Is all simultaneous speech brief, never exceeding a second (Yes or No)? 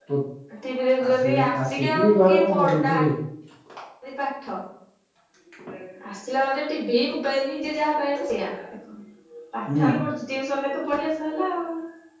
No